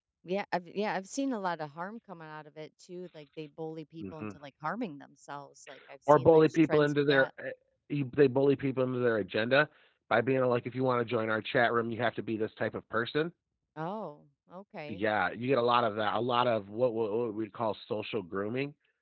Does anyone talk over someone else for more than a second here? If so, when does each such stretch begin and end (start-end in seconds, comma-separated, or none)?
6.1-7.3